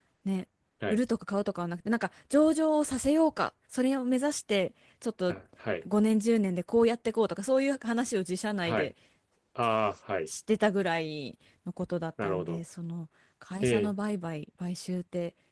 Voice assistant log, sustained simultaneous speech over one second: none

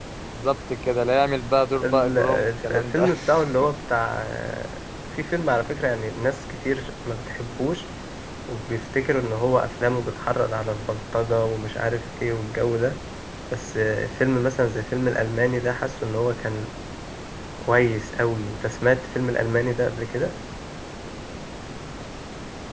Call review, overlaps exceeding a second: present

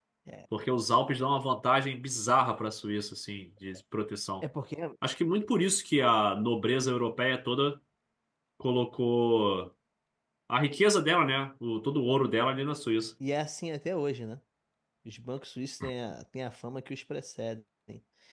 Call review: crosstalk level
none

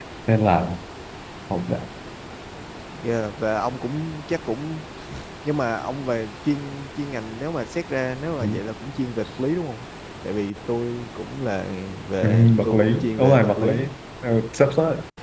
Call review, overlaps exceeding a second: present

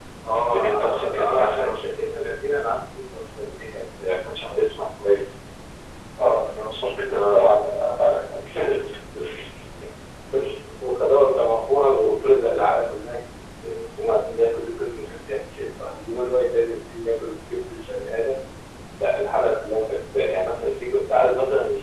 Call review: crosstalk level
present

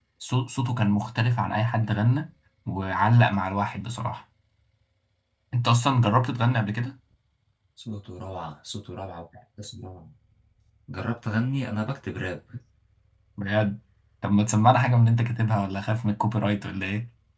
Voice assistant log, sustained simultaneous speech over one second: none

